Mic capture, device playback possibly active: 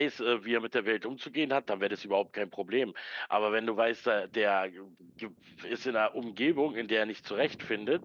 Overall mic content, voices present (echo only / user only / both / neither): user only